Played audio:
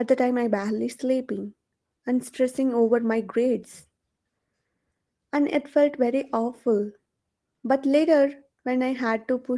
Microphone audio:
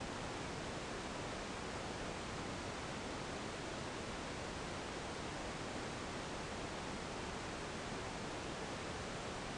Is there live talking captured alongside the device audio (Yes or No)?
No